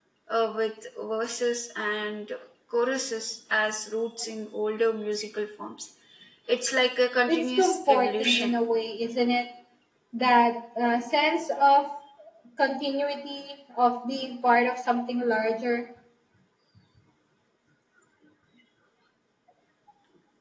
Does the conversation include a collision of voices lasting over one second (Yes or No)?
Yes